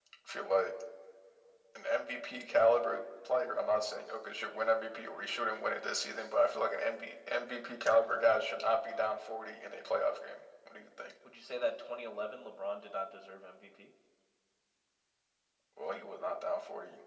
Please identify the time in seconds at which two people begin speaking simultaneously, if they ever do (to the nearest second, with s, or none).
none